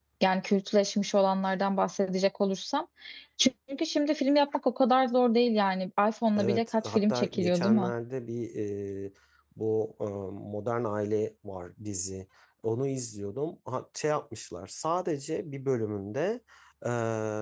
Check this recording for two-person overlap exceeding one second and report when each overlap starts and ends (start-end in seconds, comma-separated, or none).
6.4-7.9